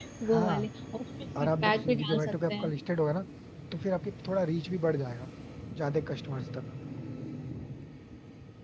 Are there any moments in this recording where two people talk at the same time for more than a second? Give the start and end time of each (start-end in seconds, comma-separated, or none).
1.4-2.7